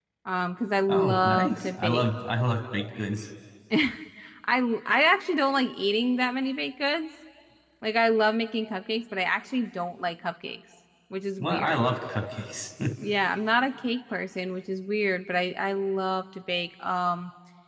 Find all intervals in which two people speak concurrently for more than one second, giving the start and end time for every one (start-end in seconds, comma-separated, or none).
0.9-2.1